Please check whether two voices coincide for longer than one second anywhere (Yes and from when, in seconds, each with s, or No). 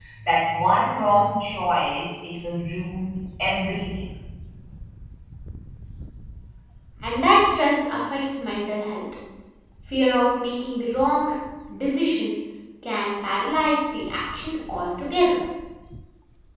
No